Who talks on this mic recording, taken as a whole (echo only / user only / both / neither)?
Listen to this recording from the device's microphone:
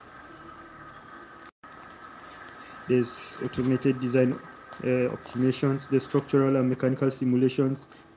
user only